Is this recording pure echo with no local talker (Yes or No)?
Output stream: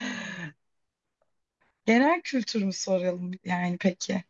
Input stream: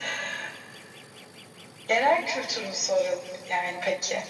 Yes